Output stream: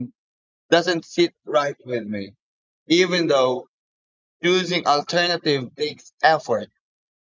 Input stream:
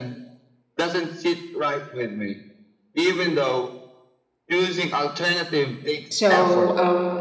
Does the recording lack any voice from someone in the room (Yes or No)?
No